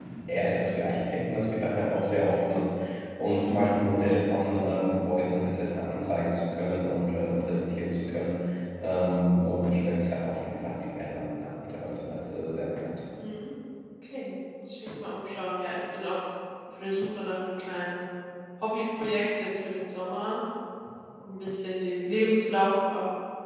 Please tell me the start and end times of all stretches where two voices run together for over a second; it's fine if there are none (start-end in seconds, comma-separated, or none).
none